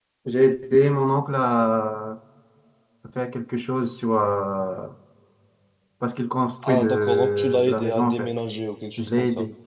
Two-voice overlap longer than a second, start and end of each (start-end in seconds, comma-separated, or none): 6.6-8.3